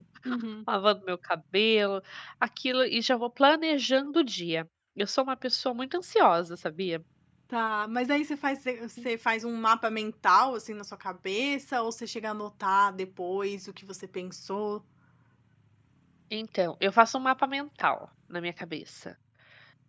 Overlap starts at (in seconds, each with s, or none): none